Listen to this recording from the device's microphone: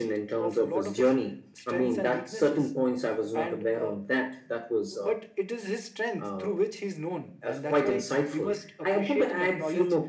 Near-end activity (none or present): none